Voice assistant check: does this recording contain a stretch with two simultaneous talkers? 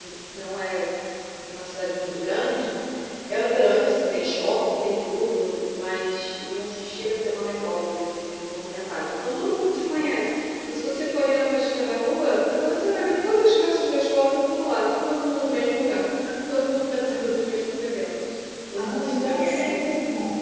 Yes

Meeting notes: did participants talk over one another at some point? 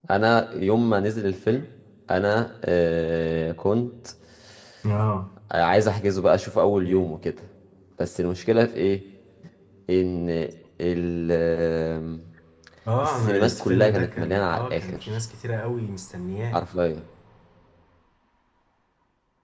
Yes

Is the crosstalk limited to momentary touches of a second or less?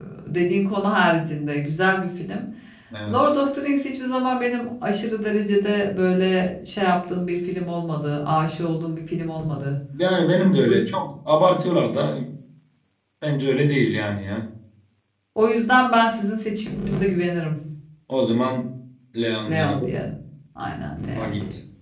Yes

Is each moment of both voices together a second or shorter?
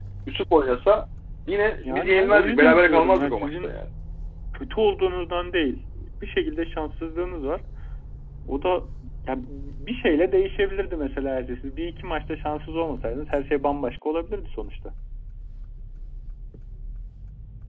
No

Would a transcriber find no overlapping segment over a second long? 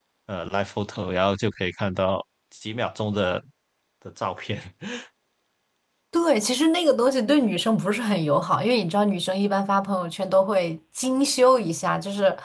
Yes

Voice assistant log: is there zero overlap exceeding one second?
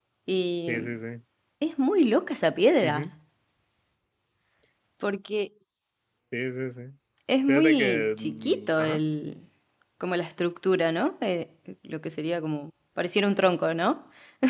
No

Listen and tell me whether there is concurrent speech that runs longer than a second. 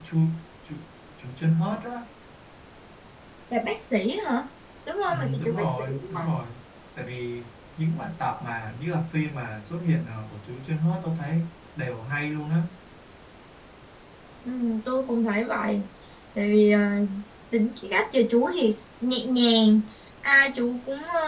Yes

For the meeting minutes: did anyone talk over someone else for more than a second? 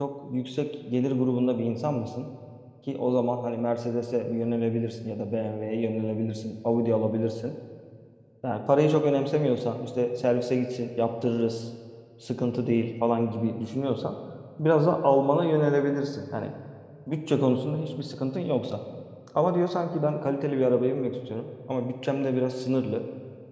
No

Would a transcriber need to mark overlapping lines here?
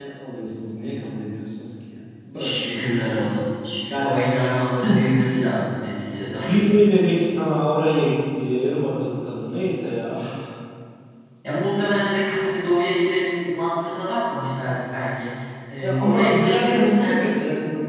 Yes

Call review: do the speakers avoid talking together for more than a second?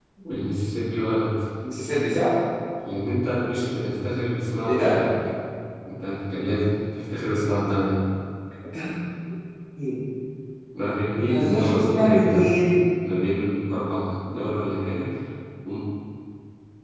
No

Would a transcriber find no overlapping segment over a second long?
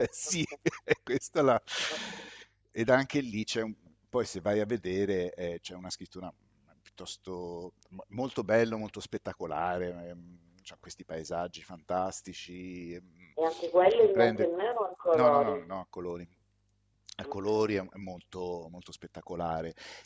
Yes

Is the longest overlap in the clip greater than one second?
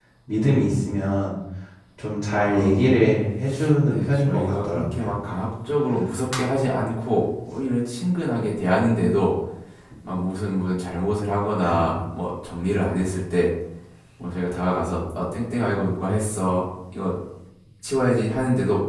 Yes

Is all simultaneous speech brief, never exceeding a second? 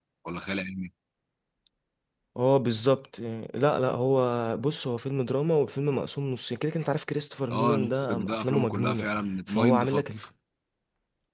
No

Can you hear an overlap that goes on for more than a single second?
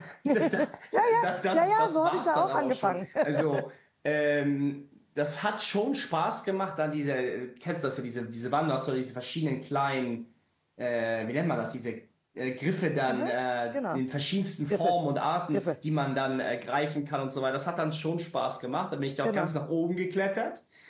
Yes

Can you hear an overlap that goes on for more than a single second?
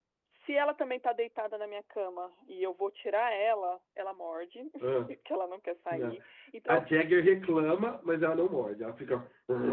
No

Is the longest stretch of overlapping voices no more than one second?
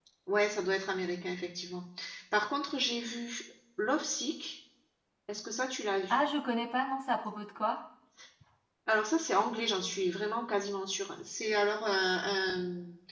Yes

